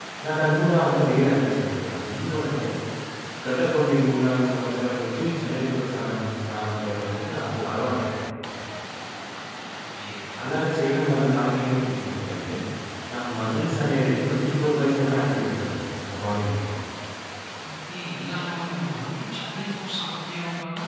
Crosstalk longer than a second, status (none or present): none